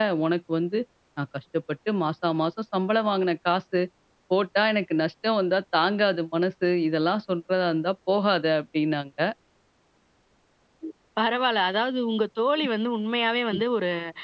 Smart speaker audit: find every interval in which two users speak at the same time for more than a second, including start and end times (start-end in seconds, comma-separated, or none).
none